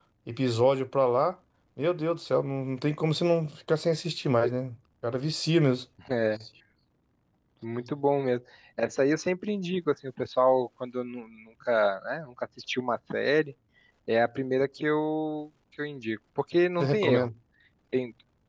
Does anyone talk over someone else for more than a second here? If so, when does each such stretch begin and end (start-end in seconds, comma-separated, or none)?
none